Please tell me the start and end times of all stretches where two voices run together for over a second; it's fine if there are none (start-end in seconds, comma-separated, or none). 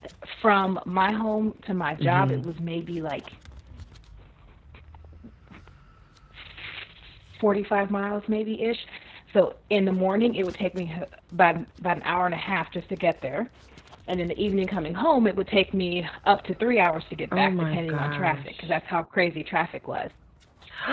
17.4-18.7